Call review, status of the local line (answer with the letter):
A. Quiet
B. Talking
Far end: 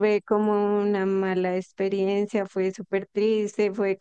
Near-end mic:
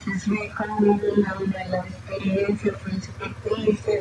A